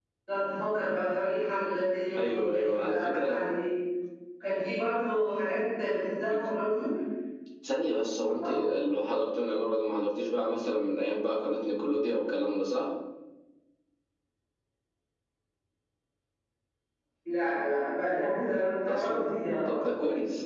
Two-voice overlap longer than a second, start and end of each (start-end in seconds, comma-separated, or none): 2.2-3.5